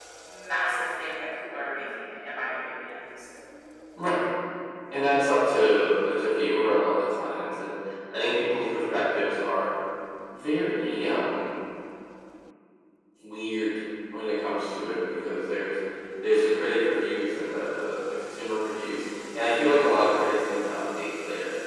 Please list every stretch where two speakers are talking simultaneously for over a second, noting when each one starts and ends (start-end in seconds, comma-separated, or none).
none